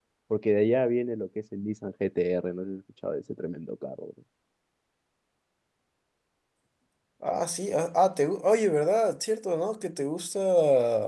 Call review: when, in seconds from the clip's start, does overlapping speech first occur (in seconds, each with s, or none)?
none